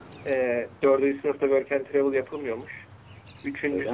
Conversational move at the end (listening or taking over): listening